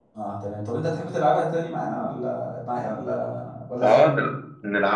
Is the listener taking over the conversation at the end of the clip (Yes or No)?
Yes